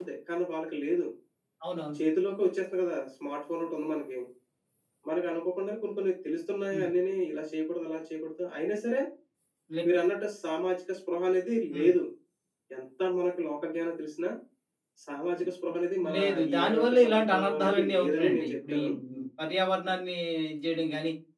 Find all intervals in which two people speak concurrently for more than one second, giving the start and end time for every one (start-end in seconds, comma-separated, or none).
16.1-18.9